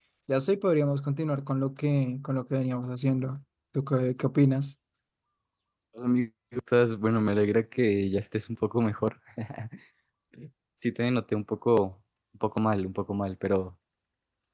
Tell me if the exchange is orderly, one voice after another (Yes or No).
Yes